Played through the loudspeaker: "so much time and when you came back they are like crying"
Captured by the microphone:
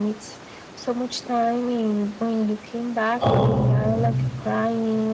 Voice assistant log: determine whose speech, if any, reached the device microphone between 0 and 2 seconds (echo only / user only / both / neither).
echo only